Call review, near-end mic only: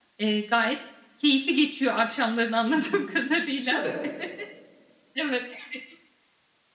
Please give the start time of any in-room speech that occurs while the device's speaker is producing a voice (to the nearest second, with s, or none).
3 s